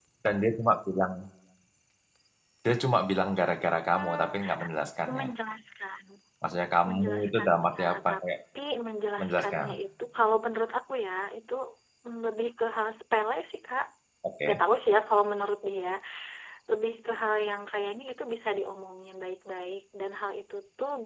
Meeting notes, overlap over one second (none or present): present